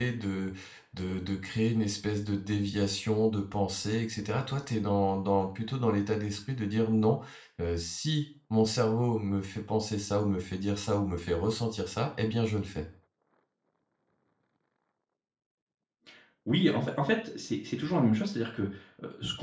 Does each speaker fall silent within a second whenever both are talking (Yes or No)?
Yes